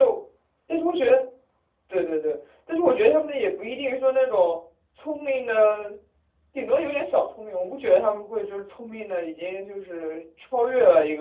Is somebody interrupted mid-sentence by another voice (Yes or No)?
No